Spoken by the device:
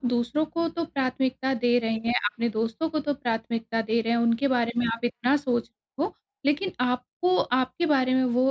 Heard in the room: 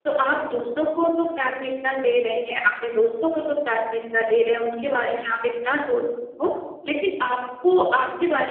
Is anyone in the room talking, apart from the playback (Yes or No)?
No